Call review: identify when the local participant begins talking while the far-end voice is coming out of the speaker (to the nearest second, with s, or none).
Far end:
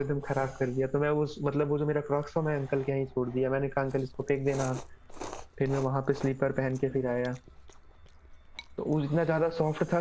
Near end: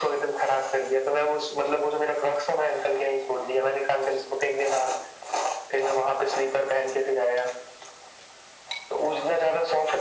none